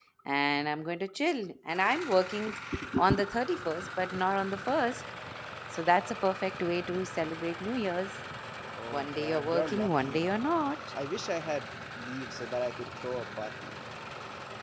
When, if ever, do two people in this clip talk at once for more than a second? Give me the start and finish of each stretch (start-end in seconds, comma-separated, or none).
8.9-10.2